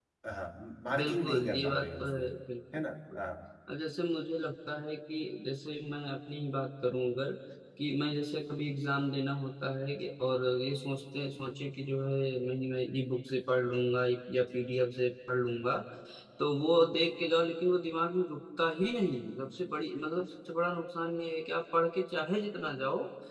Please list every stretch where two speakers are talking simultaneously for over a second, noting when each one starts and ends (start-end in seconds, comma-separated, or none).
1.0-2.3